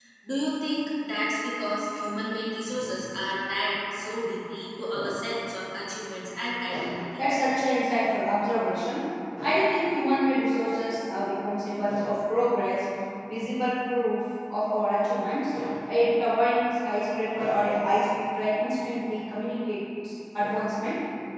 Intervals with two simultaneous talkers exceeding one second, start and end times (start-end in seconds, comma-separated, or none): none